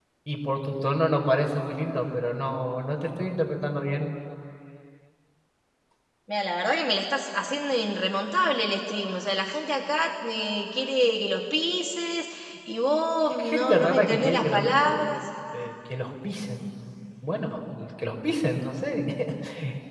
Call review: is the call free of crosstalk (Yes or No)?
No